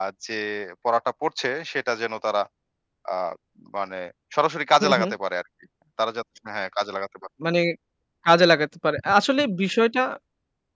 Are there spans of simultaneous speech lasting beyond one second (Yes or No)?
No